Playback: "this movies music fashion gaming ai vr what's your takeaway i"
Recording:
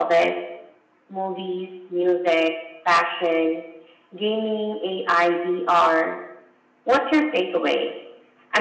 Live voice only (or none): none